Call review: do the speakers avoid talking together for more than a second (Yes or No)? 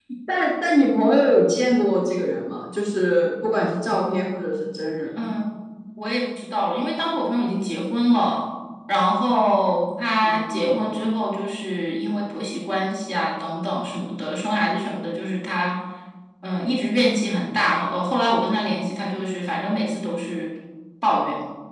Yes